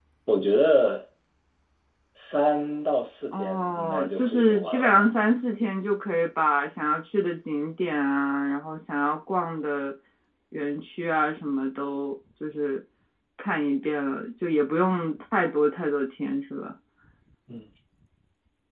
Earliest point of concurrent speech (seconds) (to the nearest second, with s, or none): 3 s